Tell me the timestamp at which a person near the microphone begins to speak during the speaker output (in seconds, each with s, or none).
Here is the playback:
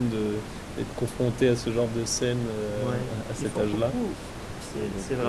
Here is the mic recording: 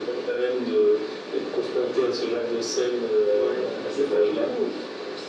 none